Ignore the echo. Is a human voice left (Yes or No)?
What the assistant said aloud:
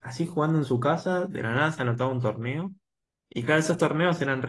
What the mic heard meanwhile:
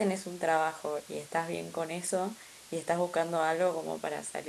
Yes